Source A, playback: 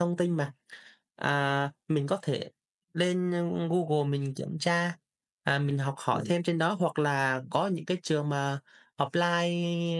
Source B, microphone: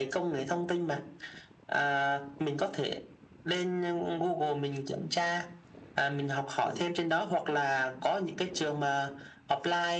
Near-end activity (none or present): none